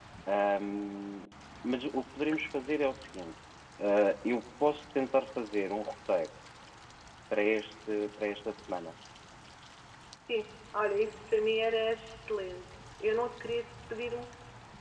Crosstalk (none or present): none